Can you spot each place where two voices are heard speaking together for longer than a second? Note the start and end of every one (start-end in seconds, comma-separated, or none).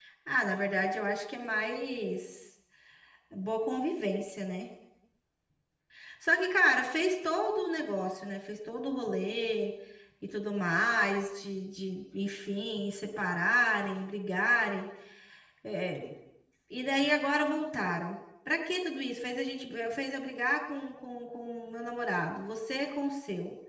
none